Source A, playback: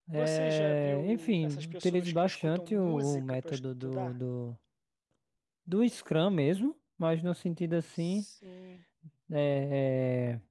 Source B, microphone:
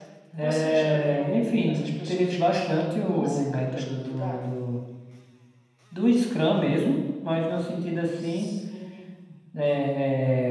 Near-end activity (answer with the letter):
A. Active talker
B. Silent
B